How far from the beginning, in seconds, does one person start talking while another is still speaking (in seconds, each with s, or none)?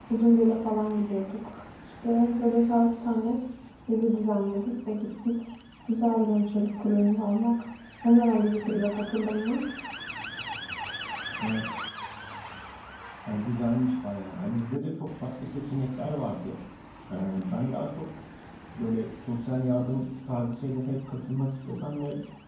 none